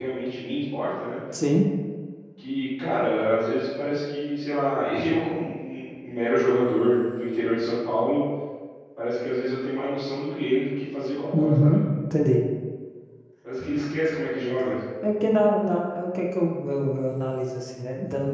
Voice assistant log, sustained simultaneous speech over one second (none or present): none